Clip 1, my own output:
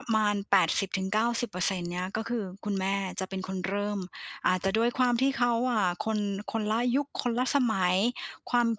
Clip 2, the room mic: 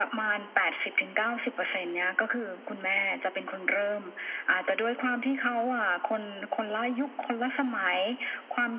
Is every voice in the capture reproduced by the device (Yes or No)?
Yes